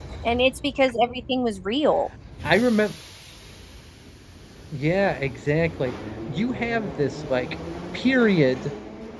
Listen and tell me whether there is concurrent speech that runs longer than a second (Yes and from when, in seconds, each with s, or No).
No